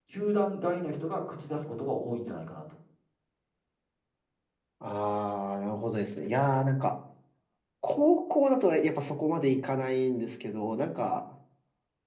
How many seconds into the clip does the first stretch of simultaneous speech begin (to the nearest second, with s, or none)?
none